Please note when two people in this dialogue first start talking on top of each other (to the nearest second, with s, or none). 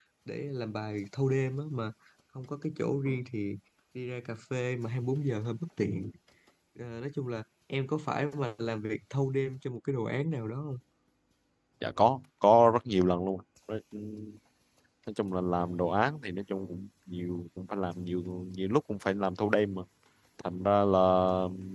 none